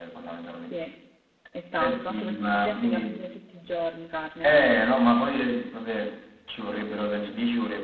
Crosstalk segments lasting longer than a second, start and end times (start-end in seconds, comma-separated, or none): 1.7-3.2